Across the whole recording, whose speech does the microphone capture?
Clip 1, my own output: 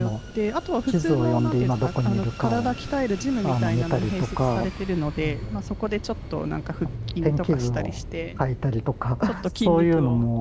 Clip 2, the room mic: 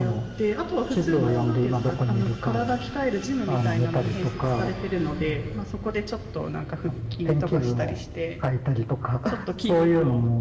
echo only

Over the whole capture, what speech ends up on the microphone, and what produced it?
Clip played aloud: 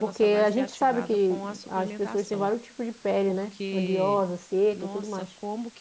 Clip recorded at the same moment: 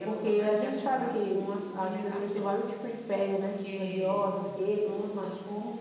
echo only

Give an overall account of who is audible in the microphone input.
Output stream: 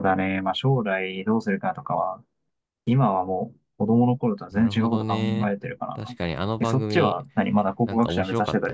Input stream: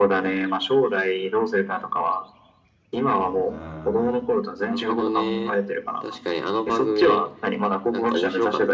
both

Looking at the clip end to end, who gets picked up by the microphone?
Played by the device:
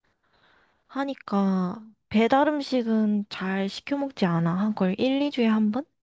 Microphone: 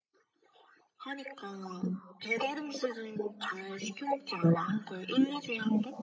echo only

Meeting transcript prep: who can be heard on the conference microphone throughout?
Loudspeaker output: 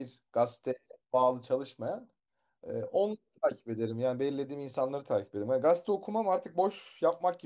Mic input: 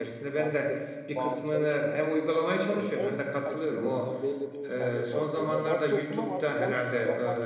both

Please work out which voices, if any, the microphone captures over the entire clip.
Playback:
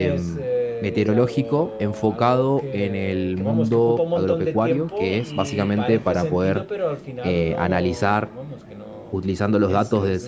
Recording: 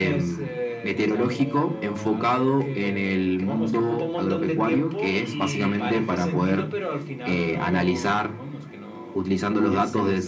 echo only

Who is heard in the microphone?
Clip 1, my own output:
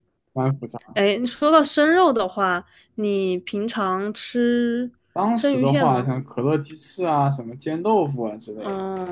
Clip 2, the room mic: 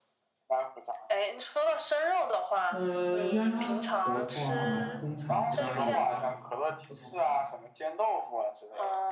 both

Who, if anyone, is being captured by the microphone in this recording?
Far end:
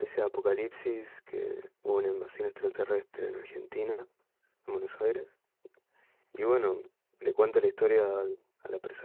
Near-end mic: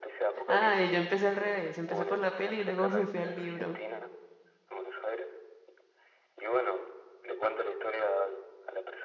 both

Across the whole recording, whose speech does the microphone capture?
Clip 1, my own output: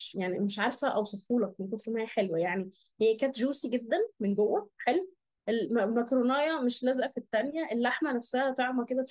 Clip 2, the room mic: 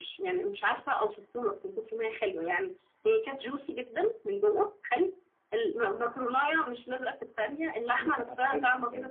both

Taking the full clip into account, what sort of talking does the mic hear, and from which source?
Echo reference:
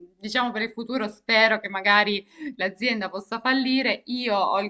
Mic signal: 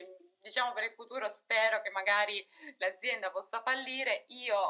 echo only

